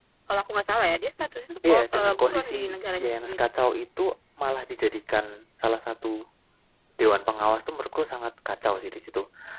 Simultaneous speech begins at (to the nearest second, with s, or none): 2 s